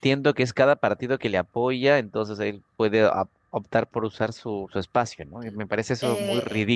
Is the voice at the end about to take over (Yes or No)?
Yes